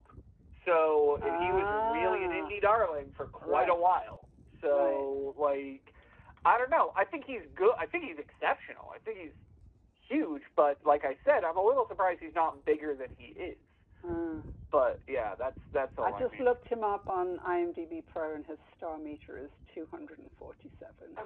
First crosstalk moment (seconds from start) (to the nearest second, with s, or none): 1 s